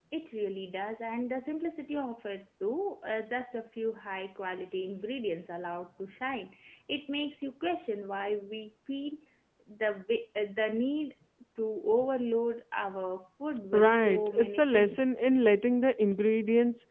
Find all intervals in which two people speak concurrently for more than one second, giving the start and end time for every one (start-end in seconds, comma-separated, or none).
13.7-15.2